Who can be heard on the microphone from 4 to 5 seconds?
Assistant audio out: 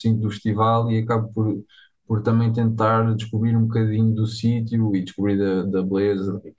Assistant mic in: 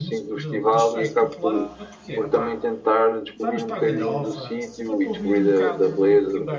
both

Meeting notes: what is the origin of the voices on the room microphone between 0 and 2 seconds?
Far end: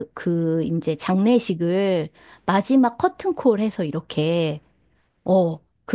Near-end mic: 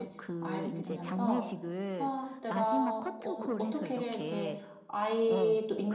both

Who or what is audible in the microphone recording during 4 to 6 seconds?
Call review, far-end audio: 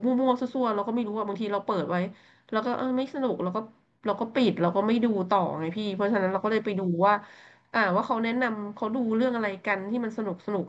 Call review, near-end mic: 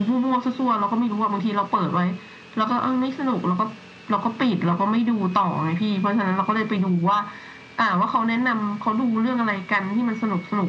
echo only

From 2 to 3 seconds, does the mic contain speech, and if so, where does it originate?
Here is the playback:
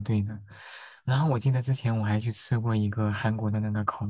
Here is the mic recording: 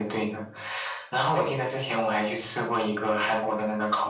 echo only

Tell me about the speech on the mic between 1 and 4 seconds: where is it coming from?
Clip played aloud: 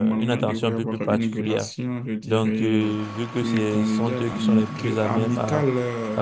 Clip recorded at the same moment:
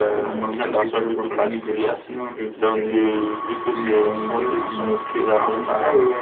echo only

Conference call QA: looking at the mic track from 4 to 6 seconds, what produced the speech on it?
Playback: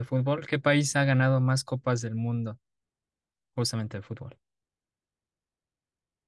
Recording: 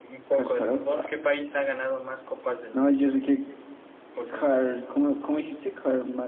both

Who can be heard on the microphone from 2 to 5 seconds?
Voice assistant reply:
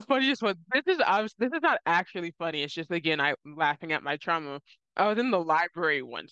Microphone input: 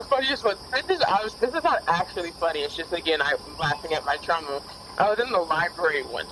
echo only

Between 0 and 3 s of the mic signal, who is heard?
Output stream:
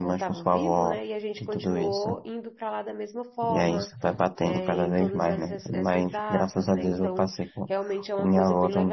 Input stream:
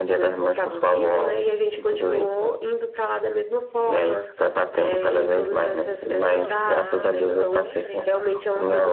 echo only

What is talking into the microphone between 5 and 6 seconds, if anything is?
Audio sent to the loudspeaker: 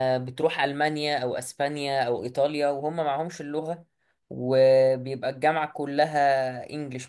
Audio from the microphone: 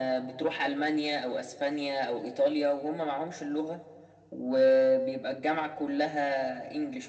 echo only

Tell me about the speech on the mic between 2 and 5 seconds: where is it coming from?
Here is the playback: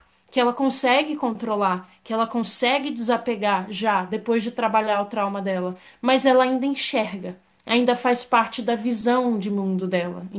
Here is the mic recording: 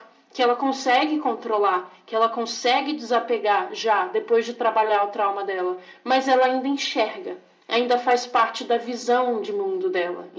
echo only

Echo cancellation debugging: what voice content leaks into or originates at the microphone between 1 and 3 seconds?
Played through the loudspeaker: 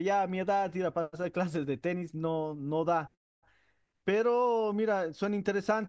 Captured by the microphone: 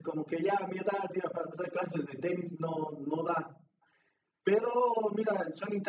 echo only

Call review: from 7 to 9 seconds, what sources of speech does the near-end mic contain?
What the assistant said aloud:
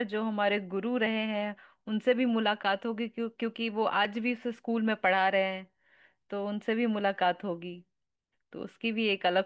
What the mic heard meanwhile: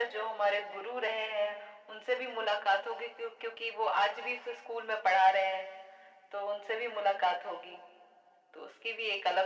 echo only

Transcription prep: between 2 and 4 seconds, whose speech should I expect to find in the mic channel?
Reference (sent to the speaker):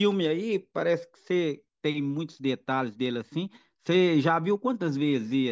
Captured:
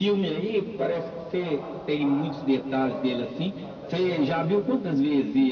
both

